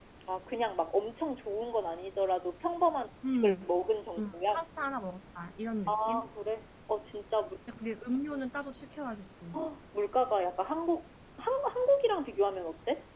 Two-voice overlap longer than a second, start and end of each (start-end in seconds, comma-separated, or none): none